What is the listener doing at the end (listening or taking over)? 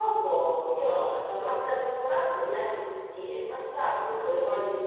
taking over